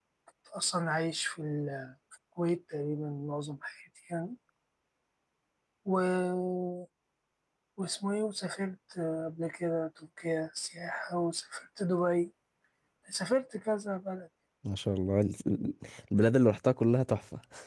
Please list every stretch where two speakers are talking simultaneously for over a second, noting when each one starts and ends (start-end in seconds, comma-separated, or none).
none